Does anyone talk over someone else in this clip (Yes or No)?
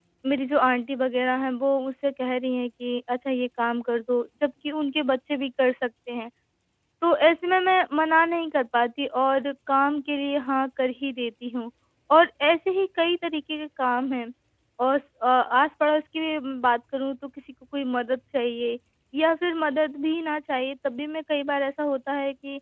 No